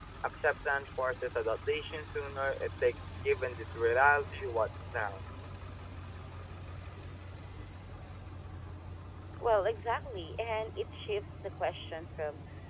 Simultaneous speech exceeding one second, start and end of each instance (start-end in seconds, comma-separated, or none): none